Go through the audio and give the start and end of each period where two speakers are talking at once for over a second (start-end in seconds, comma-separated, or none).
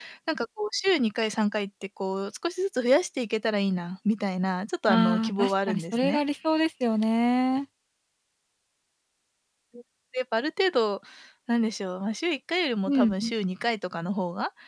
4.9-6.2